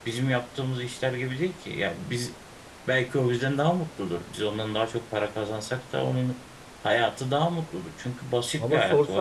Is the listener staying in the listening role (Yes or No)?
No